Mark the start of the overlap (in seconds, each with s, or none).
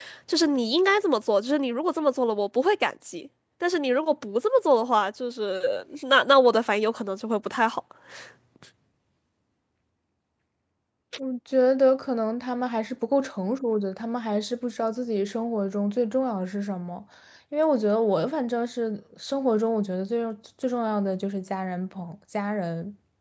none